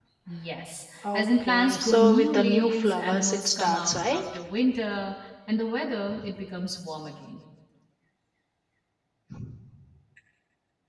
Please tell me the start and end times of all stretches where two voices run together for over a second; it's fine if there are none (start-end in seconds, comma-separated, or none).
1.1-4.2